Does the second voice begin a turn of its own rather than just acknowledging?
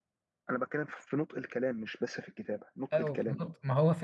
Yes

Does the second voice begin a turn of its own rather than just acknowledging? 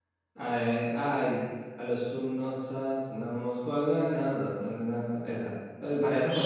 Yes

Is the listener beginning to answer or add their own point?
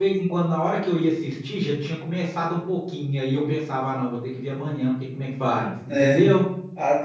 Yes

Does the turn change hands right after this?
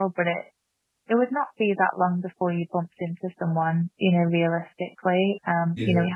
No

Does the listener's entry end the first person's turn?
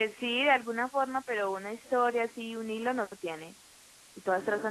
No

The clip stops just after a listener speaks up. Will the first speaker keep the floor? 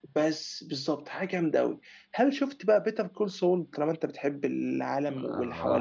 No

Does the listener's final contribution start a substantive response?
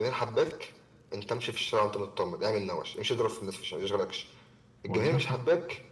No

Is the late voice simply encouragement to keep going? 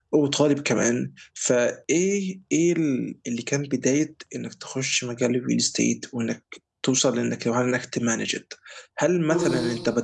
Yes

